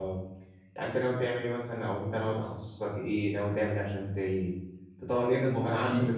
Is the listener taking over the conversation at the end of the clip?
No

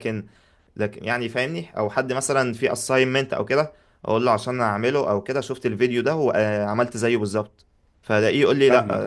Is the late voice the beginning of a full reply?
No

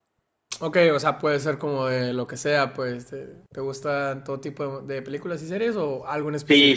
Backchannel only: No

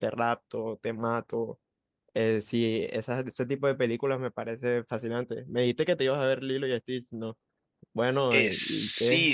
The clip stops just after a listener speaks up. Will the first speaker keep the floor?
No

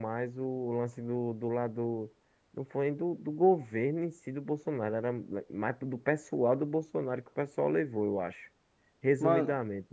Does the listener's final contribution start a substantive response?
Yes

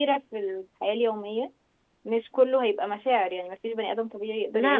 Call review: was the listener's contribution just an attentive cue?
No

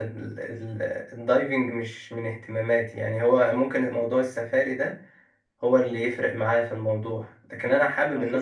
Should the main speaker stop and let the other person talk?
No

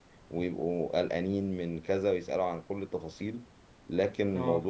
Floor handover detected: No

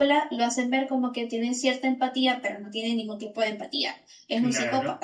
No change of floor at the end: No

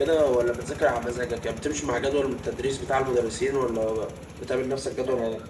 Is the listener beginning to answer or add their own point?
Yes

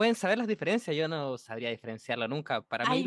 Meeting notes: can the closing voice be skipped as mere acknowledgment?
Yes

